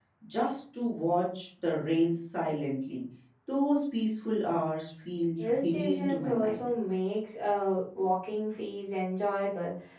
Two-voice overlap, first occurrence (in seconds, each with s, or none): 5.4 s